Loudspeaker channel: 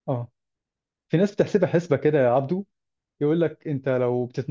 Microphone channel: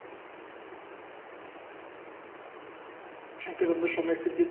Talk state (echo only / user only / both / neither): user only